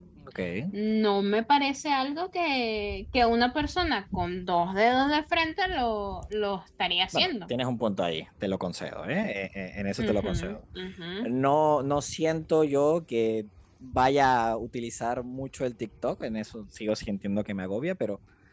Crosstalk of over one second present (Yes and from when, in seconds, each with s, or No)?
No